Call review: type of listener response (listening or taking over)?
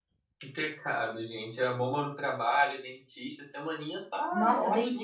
taking over